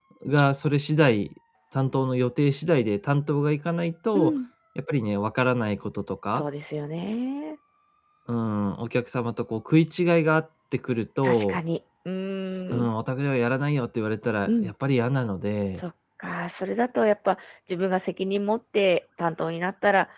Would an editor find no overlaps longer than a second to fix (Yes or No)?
Yes